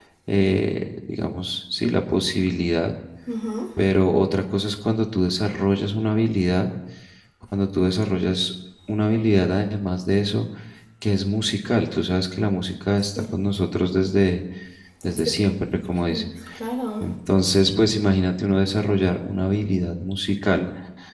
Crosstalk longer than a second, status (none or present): none